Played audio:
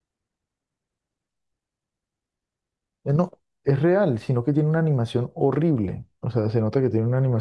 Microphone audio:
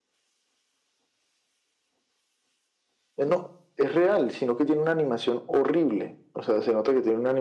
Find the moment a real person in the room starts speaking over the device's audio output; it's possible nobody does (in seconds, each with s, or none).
none